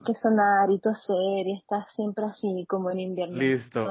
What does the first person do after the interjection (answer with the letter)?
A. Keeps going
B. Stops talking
B